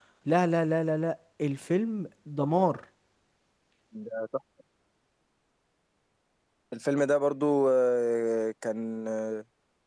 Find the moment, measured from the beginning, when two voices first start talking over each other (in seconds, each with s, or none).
none